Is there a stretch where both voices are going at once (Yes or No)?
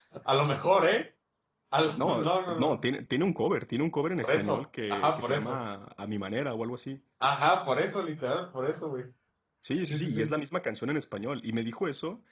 Yes